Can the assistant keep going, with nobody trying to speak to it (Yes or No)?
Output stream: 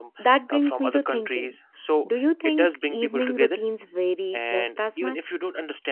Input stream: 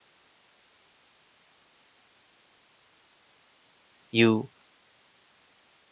No